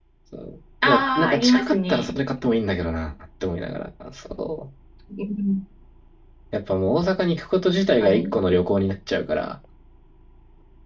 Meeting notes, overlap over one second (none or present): present